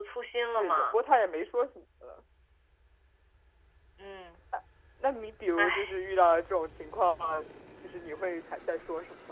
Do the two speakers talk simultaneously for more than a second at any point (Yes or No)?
No